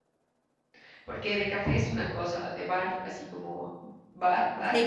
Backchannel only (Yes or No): No